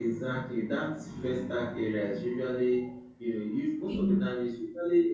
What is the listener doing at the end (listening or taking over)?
listening